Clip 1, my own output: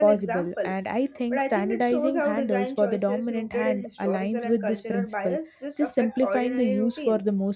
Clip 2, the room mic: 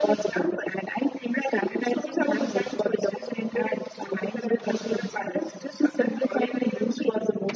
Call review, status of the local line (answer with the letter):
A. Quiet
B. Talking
A